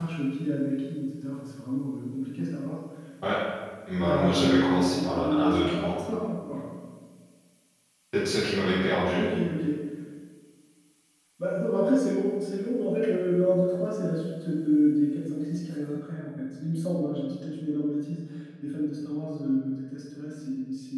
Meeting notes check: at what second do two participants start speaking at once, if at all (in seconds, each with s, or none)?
4.0 s